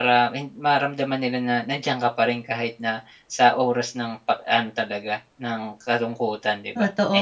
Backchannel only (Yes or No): No